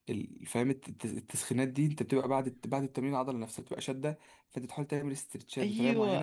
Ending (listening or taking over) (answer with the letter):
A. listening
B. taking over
B